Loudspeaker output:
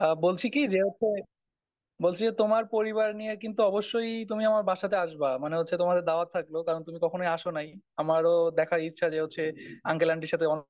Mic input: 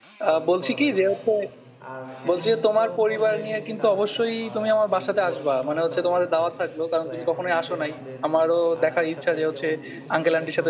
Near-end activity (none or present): present